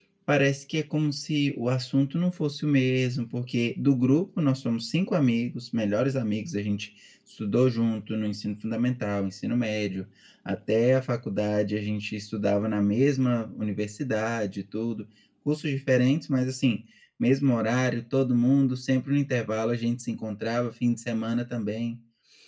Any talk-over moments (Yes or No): No